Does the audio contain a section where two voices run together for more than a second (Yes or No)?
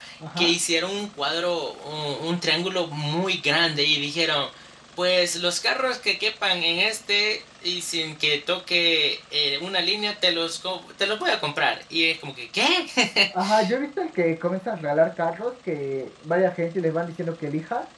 No